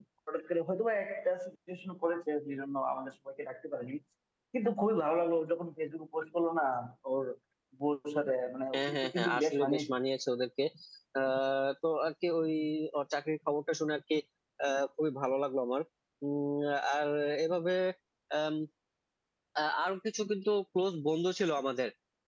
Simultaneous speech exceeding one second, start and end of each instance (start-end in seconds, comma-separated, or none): 8.7-10.0